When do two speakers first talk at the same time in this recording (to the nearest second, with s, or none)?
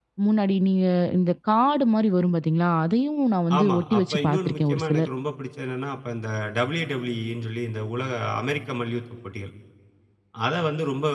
4 s